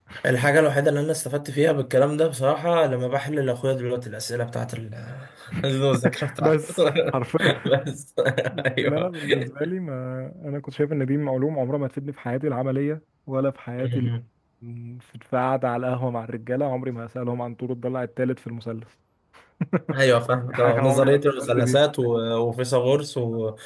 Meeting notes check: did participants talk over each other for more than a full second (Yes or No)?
Yes